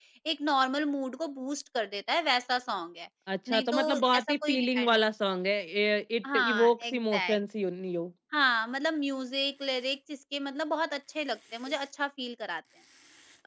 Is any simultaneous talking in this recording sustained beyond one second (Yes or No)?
Yes